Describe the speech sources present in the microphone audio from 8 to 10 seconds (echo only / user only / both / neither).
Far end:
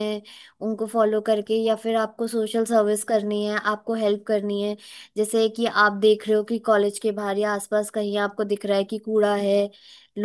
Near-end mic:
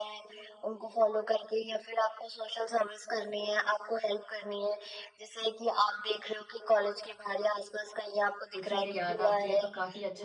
both